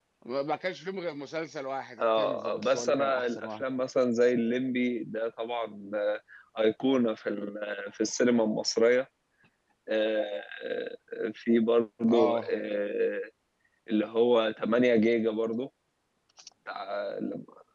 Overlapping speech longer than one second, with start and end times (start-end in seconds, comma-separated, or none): 2.0-3.6